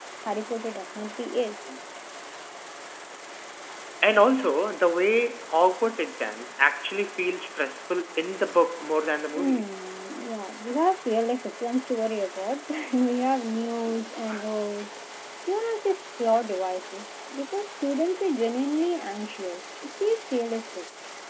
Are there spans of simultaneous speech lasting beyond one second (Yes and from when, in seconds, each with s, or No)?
No